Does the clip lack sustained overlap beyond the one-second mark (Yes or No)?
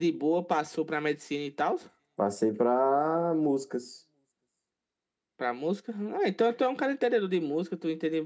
Yes